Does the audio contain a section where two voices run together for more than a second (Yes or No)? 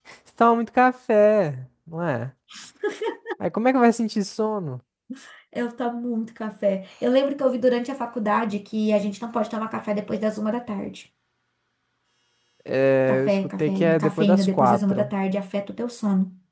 Yes